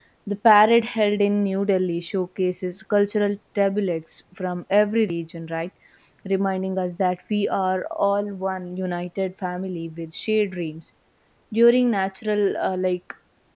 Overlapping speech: No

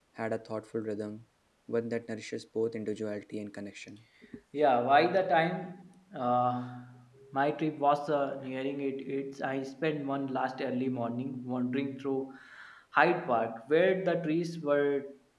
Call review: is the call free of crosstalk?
Yes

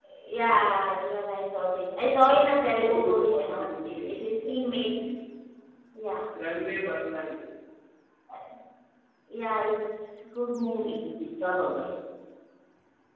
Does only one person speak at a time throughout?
No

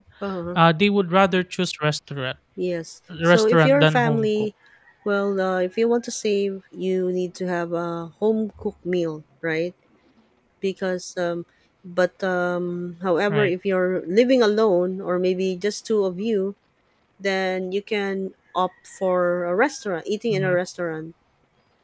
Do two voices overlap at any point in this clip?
Yes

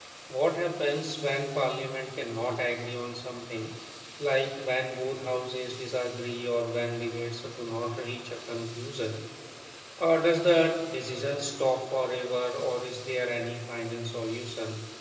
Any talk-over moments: No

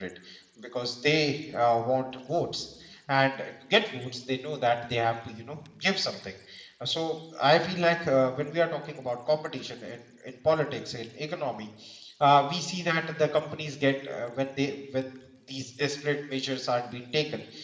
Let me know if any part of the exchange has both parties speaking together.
No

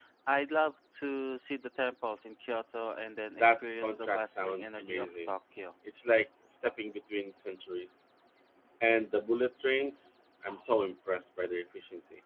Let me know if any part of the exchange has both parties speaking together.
Yes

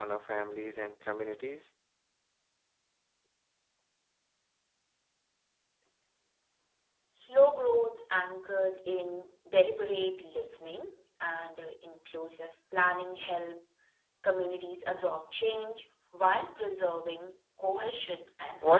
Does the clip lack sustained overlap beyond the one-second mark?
Yes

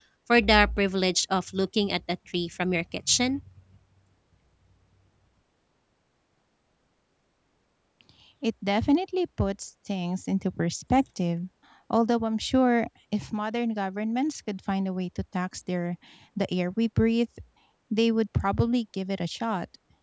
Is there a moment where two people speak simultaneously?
No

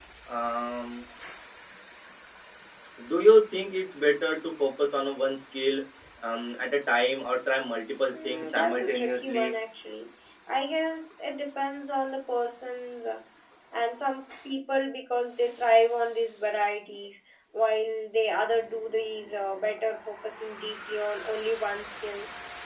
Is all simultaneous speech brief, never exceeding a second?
No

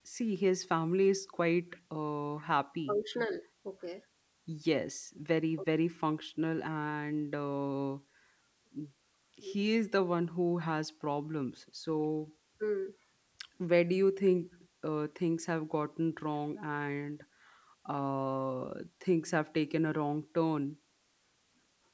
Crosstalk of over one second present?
No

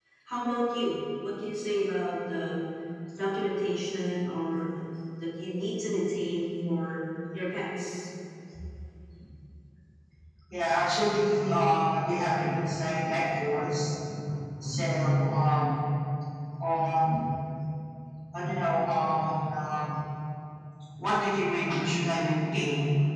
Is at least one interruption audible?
No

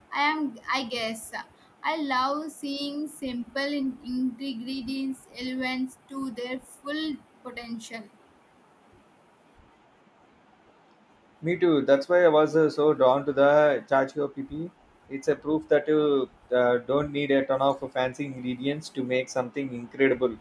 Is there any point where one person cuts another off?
No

